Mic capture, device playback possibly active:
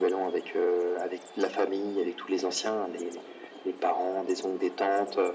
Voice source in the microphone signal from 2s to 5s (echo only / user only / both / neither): echo only